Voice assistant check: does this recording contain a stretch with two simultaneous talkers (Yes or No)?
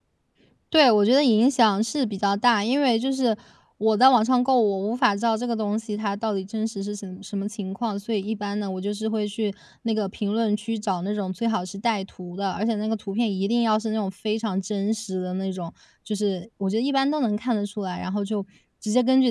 No